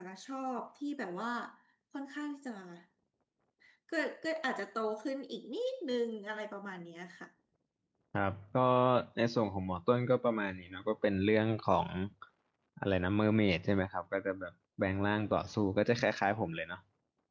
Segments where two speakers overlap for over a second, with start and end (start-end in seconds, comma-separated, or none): none